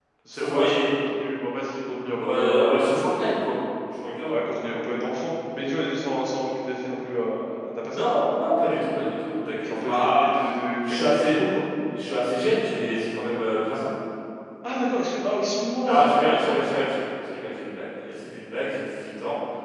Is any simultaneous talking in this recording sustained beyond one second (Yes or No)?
Yes